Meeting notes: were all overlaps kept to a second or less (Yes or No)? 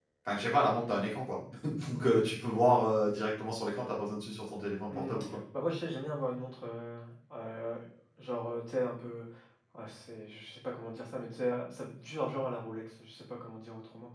Yes